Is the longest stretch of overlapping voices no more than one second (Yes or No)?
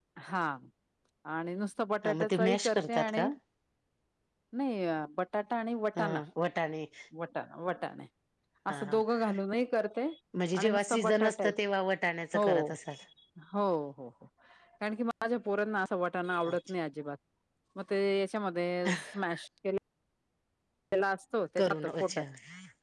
No